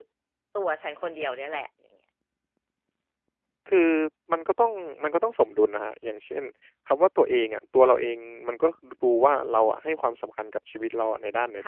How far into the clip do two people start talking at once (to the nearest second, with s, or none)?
none